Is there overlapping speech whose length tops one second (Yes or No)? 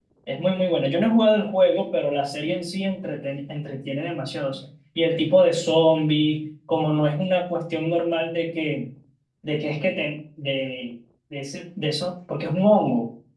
No